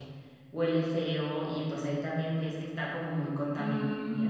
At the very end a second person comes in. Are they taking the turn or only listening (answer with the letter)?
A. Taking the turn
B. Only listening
A